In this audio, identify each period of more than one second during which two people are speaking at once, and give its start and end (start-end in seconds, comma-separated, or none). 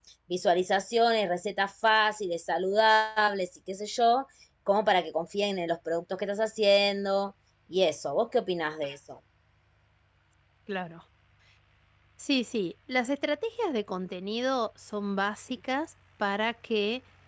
none